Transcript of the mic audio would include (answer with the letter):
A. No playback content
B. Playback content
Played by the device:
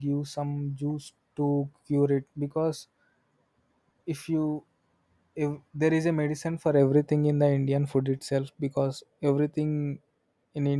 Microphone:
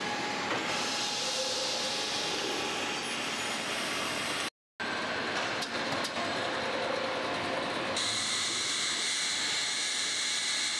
A